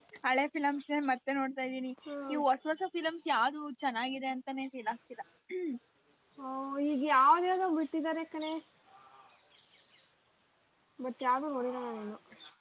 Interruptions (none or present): none